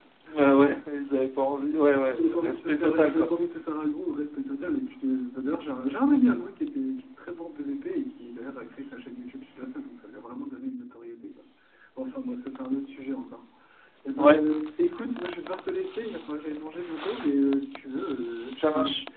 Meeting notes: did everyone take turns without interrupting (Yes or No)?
No